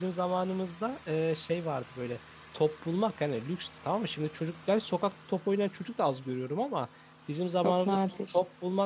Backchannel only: Yes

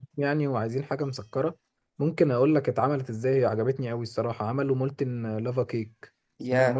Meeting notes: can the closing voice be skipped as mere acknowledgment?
No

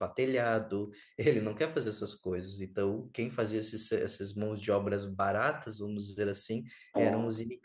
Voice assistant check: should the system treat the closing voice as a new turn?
No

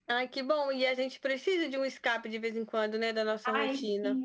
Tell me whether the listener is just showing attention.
No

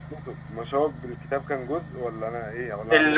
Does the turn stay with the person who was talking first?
No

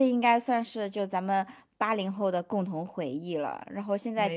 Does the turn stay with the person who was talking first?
Yes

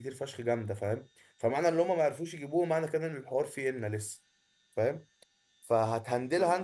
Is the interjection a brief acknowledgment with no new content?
Yes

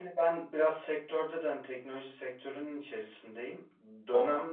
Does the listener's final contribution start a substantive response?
No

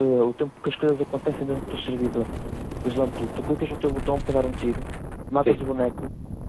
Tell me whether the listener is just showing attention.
Yes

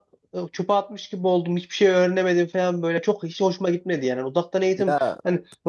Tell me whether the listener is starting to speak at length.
No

